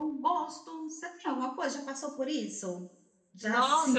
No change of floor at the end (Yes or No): No